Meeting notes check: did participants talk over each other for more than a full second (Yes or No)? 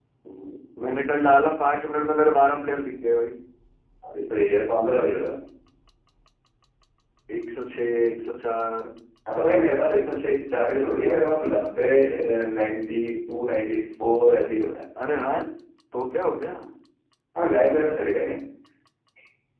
No